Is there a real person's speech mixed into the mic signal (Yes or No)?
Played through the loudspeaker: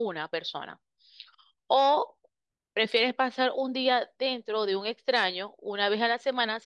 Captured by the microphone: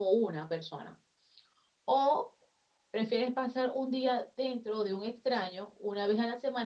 No